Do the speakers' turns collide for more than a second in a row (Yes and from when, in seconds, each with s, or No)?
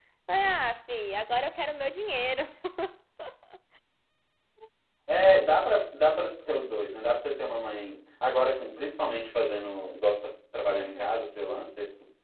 No